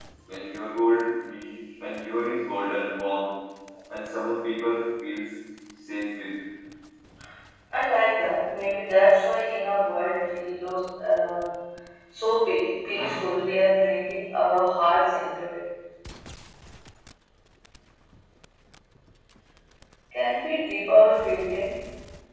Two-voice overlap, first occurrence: none

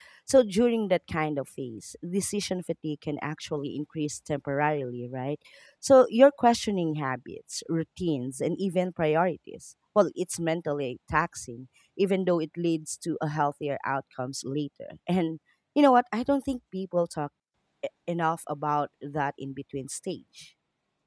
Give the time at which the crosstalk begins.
none

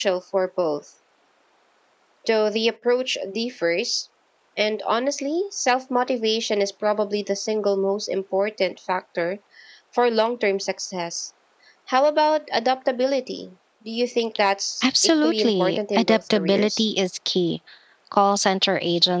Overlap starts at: 14.8 s

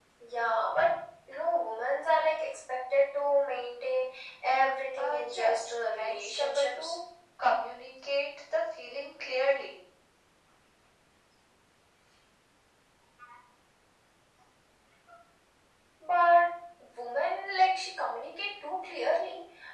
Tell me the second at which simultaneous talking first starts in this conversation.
5.0 s

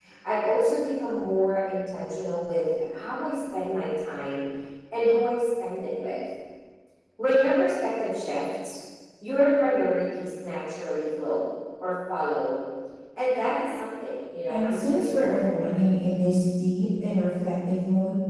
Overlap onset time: 14.5 s

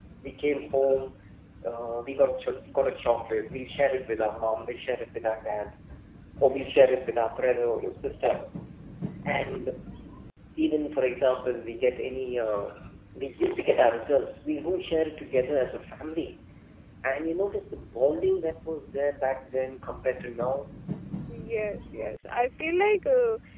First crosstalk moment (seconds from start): none

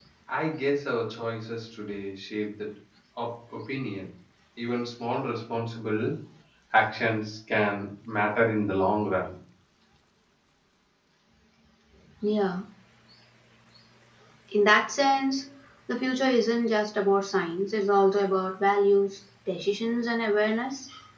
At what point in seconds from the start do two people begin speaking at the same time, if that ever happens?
none

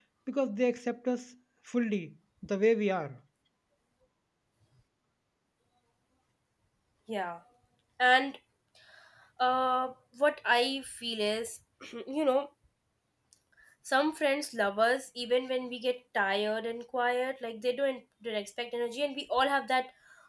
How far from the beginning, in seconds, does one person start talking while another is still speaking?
none

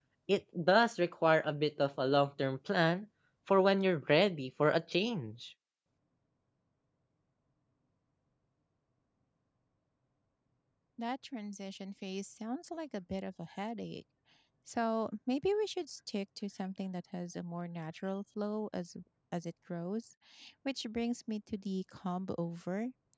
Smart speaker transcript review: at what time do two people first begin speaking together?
none

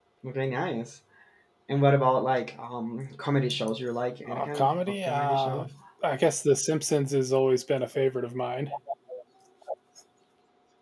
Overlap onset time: 4.2 s

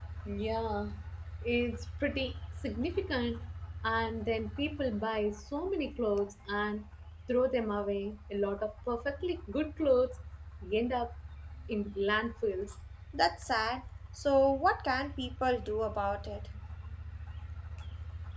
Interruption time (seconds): none

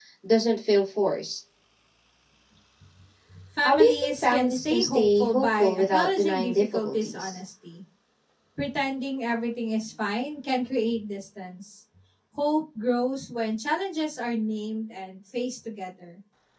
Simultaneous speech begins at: 3.6 s

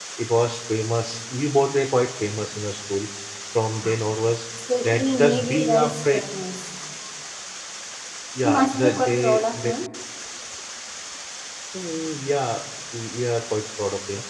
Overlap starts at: 4.8 s

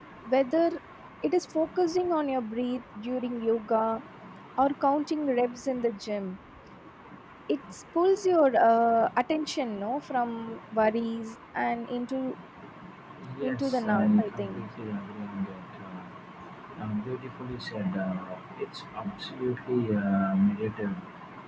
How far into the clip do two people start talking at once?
13.4 s

